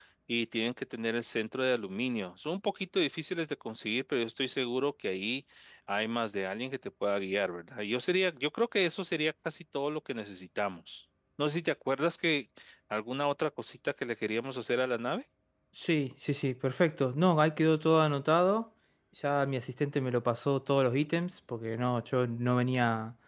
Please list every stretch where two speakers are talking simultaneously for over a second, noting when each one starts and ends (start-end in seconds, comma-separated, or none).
none